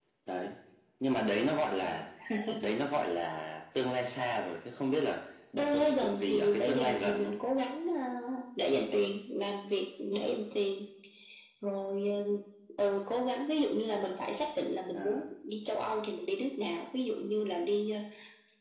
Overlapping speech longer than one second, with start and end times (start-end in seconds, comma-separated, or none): 5.6-7.3